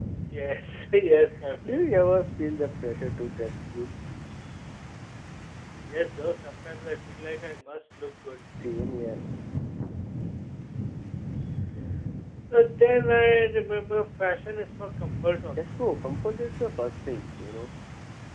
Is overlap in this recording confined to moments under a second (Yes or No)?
Yes